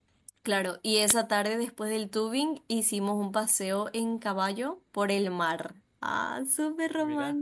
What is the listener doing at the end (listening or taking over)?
listening